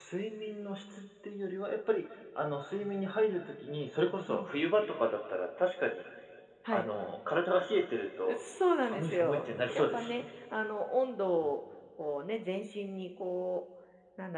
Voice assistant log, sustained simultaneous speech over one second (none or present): present